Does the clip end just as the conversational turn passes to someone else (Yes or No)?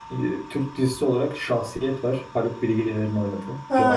Yes